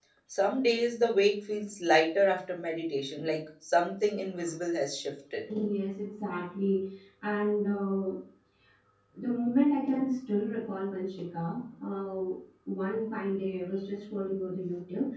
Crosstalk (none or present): none